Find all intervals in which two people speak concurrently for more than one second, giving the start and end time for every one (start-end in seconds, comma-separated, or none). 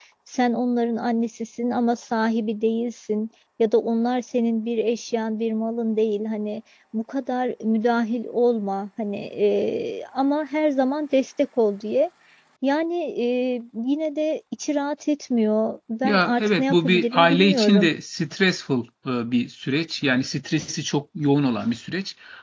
16.0-17.9